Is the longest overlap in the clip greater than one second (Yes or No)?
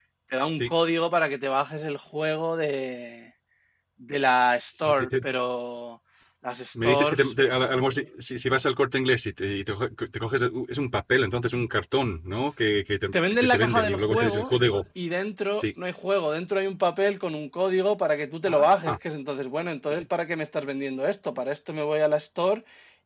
Yes